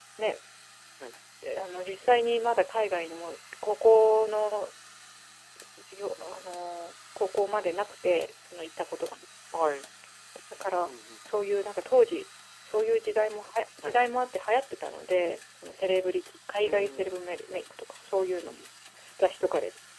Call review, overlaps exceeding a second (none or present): none